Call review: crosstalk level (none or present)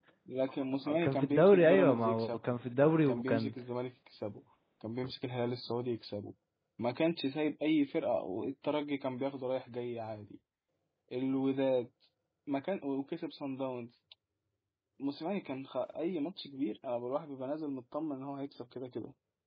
present